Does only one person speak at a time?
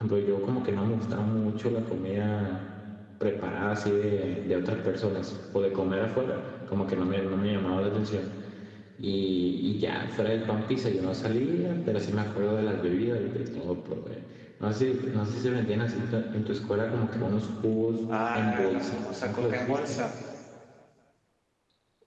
No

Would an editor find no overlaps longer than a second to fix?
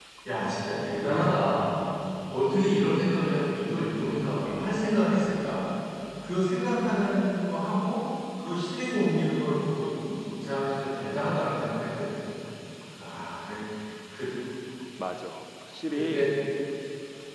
Yes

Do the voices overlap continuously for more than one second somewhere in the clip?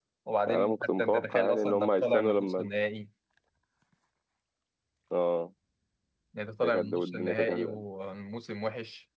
Yes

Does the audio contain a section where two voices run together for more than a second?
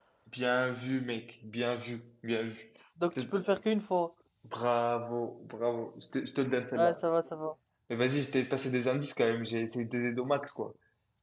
No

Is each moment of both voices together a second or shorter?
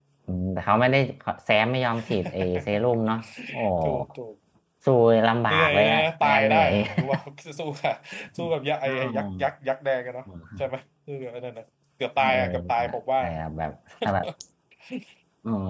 No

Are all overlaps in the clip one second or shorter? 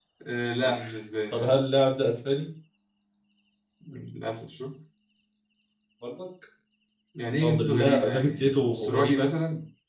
No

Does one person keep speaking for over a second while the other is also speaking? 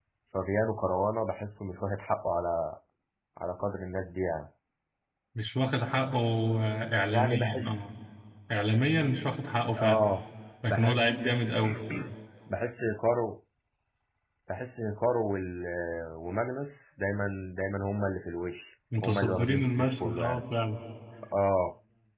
Yes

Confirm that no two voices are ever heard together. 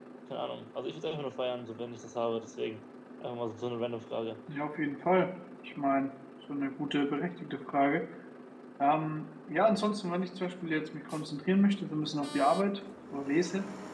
Yes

